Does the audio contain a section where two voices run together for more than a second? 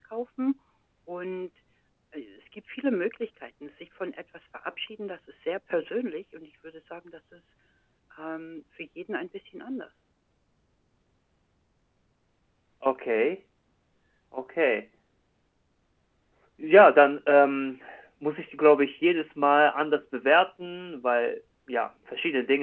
No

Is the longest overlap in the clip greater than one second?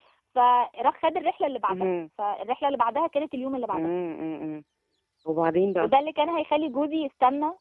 No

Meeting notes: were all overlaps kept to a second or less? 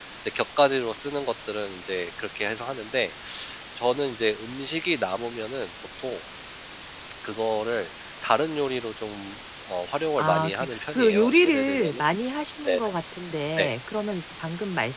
No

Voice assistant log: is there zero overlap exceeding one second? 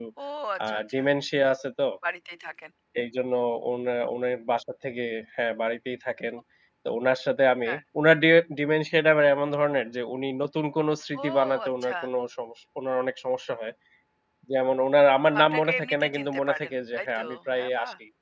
No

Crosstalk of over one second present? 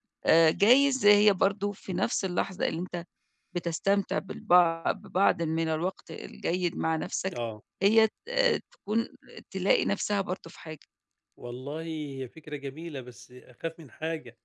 No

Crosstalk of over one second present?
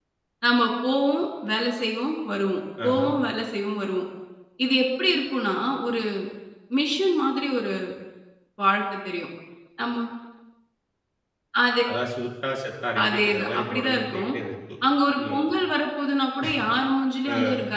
Yes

